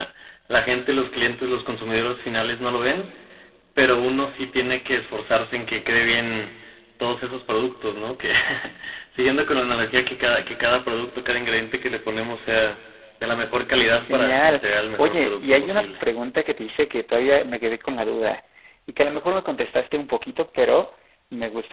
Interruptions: present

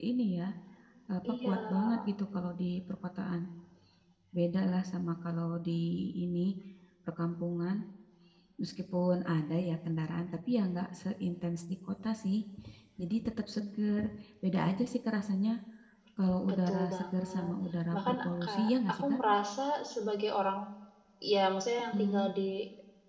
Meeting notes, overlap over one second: present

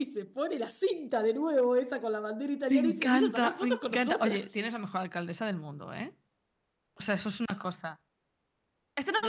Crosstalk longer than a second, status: present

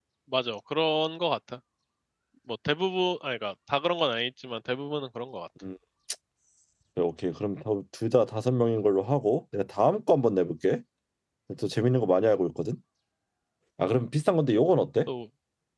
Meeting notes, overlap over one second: none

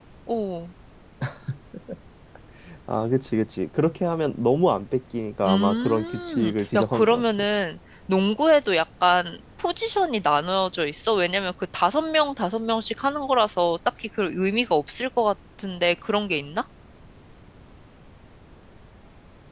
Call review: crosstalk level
present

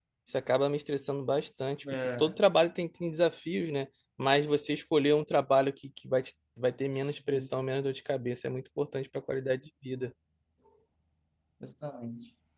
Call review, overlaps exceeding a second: none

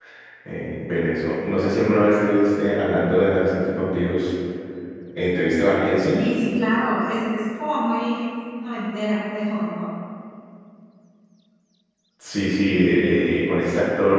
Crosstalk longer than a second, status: none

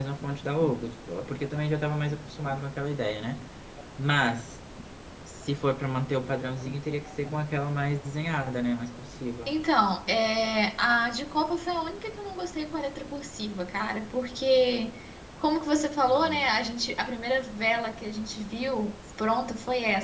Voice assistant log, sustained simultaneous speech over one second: none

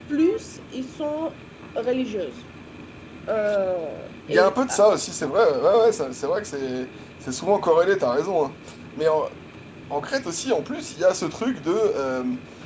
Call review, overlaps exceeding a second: none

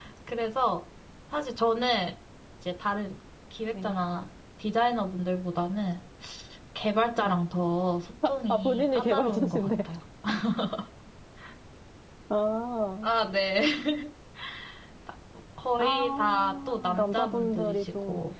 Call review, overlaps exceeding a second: present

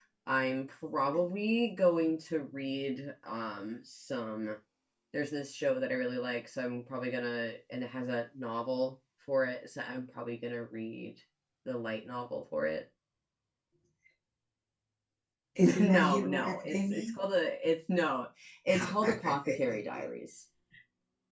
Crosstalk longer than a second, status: present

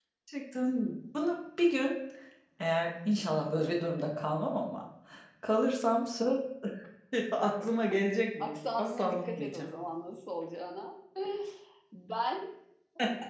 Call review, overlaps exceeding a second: present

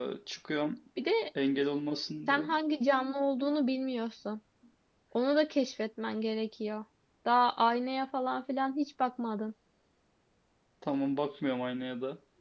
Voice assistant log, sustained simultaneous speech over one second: none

